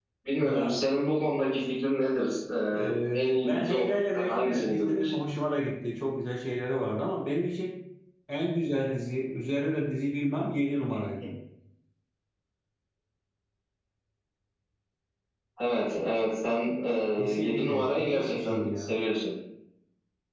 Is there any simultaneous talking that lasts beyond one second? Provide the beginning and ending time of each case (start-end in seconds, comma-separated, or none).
2.7-5.2, 17.3-18.9